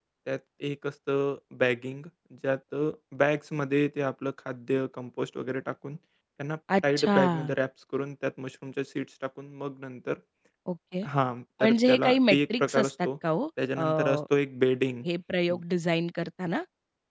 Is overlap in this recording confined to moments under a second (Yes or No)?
No